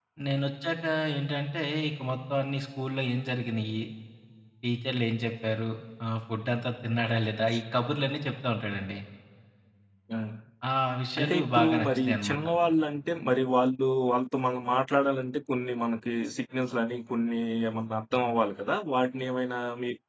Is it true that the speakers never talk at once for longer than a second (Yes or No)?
No